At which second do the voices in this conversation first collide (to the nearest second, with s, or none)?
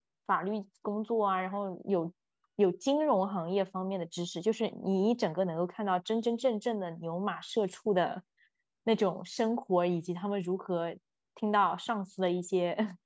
none